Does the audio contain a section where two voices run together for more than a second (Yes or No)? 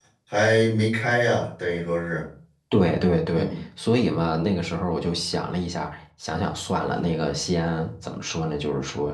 No